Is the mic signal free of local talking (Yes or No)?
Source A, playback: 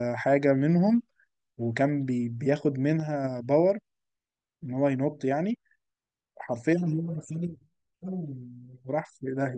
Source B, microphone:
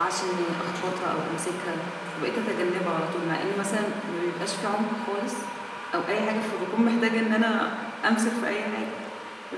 No